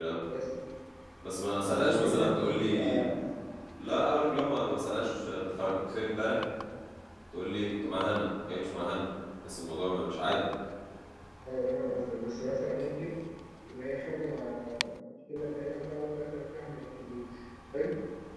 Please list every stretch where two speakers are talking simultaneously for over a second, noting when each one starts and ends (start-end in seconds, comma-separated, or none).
1.6-3.0